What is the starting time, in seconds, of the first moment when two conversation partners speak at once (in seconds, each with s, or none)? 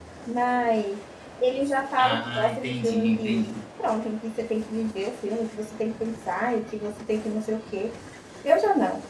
2.0 s